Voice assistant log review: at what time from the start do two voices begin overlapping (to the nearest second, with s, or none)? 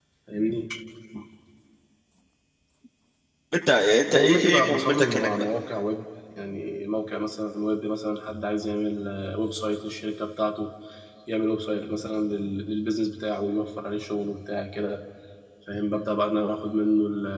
4 s